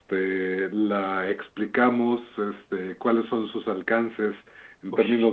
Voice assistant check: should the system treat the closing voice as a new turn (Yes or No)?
No